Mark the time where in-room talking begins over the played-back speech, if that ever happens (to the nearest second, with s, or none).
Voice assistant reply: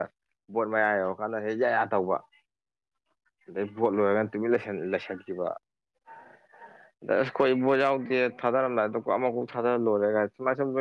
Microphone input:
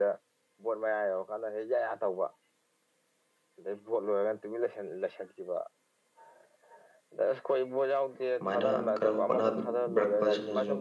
8 s